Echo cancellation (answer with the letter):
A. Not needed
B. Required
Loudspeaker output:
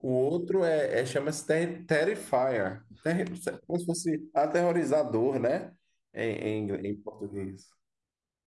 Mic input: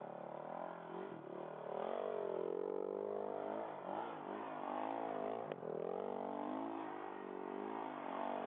A